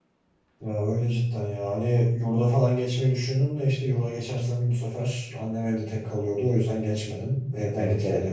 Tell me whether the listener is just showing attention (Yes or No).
Yes